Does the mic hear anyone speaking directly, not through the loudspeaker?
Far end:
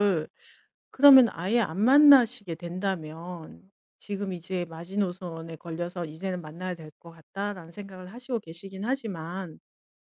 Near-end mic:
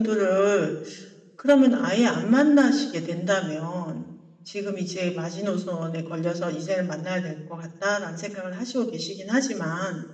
No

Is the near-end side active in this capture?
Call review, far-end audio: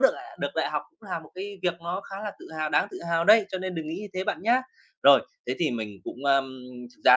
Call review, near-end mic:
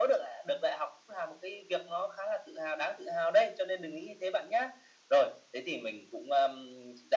No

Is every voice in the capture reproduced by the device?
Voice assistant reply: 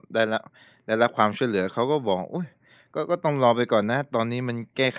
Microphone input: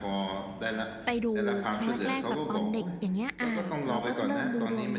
No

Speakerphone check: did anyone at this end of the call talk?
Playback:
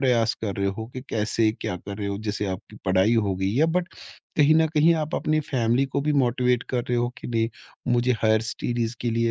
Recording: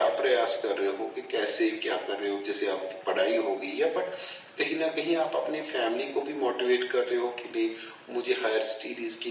No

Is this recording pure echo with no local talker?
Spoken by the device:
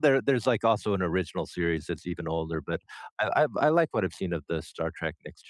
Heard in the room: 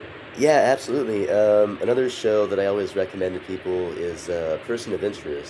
No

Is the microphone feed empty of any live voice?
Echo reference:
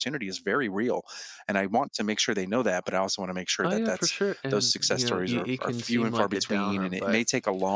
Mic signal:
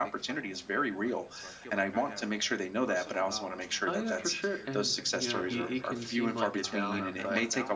No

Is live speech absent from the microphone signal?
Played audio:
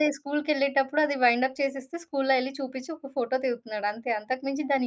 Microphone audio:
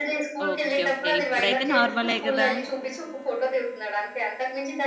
No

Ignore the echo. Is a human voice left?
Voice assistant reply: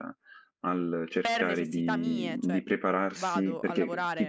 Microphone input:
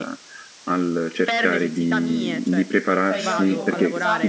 Yes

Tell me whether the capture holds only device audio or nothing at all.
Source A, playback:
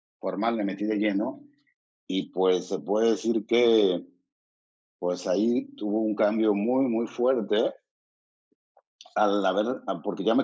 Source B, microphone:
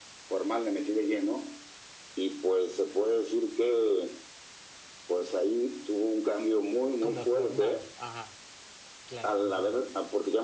No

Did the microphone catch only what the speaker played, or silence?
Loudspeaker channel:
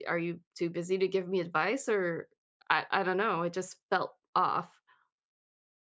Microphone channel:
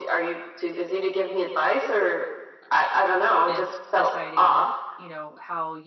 No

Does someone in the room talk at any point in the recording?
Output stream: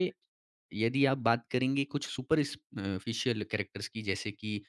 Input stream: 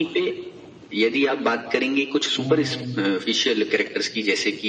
Yes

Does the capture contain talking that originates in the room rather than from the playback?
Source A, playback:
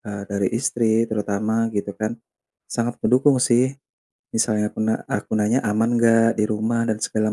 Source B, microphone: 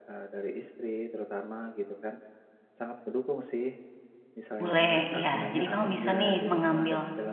Yes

